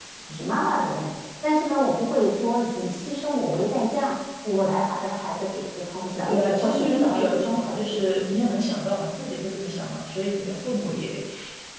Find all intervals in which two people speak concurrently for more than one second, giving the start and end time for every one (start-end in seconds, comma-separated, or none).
6.3-8.1